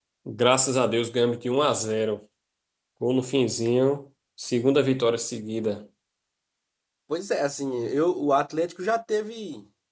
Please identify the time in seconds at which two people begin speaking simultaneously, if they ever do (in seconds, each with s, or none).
none